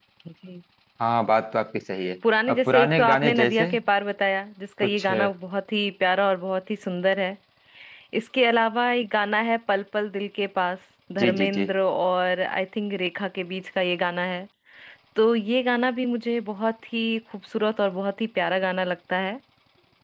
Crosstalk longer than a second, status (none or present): present